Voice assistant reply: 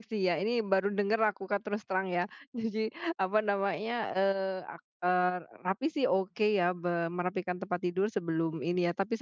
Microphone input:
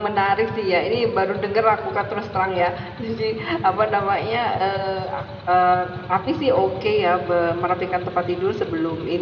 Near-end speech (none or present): none